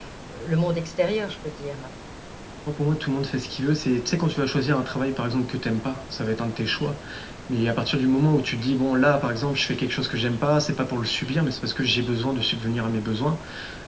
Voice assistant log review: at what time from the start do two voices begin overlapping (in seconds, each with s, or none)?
none